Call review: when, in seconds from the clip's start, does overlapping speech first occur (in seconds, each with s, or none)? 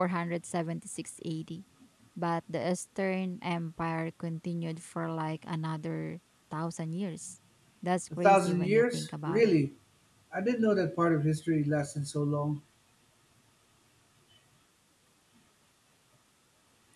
8.2 s